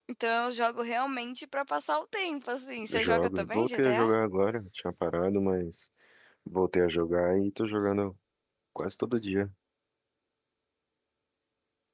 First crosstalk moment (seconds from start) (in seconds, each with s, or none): 2.8 s